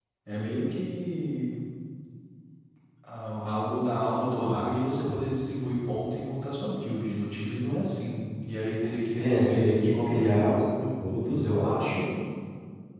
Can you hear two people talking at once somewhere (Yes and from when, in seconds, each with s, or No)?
Yes, from 9.2 s